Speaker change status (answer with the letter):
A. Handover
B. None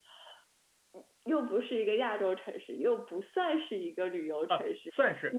A